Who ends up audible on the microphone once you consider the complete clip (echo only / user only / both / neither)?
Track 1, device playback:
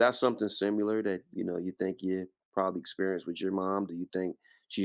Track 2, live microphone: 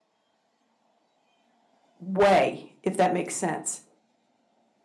user only